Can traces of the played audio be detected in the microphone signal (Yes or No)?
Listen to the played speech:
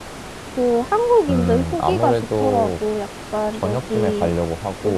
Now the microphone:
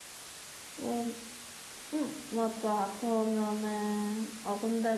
No